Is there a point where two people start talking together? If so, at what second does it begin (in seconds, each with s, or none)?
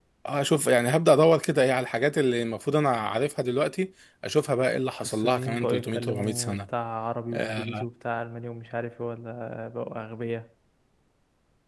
5.0 s